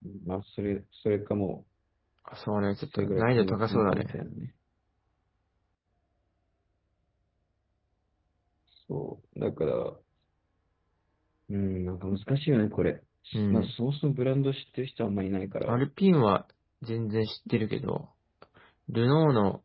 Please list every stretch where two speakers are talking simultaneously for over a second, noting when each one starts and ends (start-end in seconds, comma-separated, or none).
2.9-4.1